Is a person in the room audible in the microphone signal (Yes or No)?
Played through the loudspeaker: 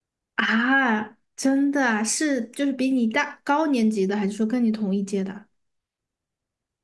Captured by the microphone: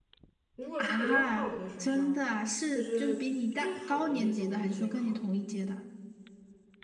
Yes